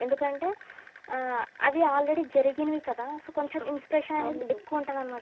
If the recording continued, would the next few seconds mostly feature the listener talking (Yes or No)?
No